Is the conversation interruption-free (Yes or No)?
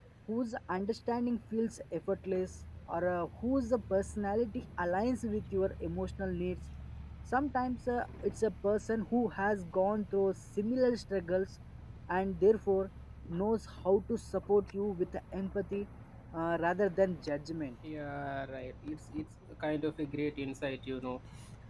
Yes